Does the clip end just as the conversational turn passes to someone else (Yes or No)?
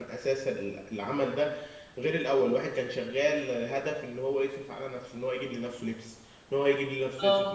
No